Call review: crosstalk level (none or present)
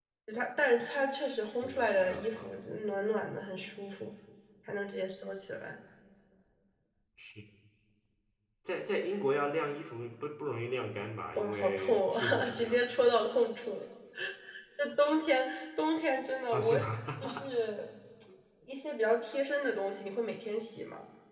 present